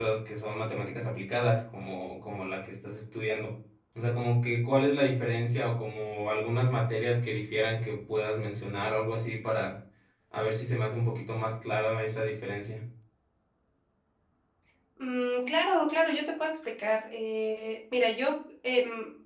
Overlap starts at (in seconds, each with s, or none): none